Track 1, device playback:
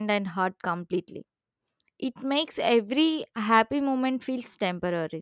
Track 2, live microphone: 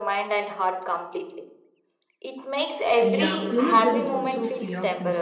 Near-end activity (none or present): present